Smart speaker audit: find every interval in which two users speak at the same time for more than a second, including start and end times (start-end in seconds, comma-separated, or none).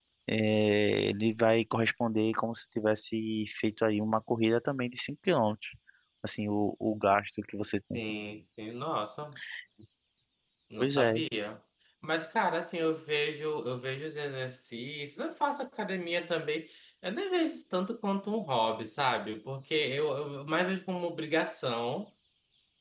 none